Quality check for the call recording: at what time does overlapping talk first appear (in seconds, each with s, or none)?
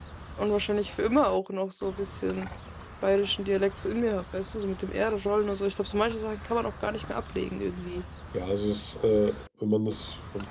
none